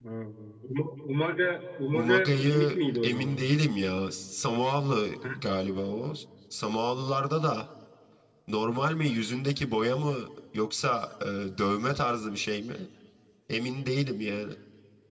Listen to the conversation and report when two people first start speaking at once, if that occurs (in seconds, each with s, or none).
1.9 s